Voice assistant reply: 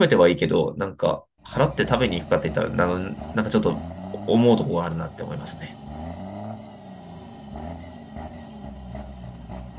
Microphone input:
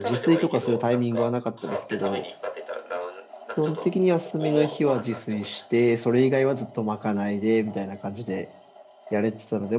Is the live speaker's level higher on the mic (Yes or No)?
Yes